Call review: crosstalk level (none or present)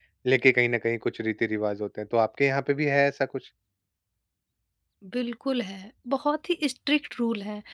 none